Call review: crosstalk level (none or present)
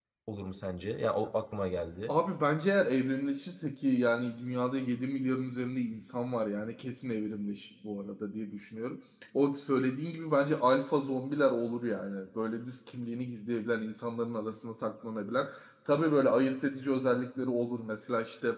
none